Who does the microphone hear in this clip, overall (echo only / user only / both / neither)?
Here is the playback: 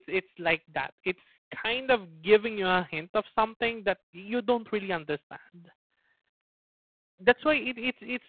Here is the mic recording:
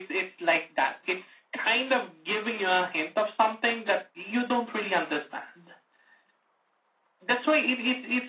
echo only